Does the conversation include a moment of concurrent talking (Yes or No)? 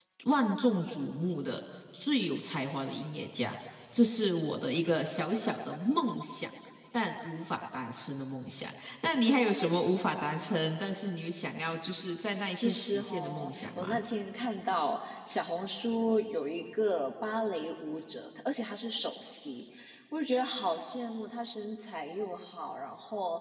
Yes